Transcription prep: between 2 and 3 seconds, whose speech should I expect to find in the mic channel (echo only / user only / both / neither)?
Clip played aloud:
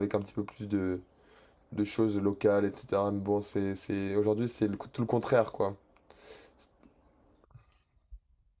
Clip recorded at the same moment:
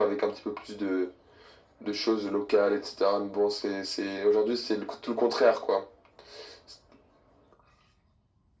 echo only